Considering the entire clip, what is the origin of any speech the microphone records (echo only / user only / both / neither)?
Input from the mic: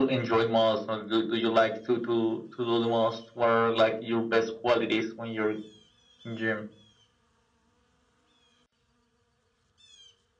echo only